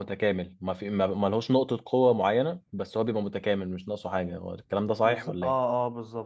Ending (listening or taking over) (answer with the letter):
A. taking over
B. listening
A